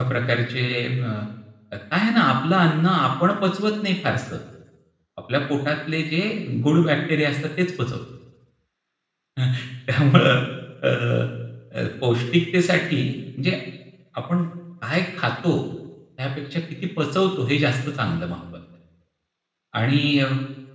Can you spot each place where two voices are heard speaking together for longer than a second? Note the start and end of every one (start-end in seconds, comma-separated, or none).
none